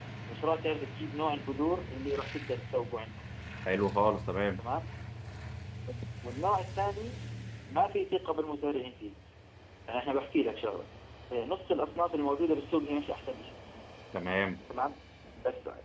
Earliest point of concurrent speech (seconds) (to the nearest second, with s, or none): none